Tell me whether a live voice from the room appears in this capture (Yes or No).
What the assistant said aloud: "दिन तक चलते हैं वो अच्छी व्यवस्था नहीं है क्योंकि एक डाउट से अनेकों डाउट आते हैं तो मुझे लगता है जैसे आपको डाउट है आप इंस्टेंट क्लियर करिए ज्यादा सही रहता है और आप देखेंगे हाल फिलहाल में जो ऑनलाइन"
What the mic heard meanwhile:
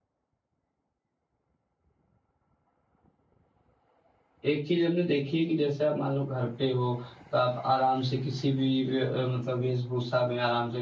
Yes